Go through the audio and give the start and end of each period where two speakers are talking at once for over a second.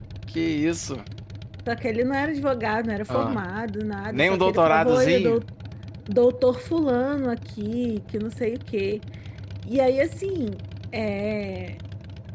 4.1-5.4

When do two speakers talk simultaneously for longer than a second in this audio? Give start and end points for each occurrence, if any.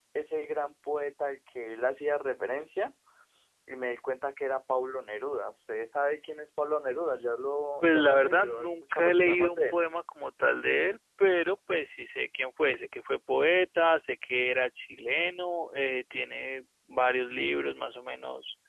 7.8-9.8

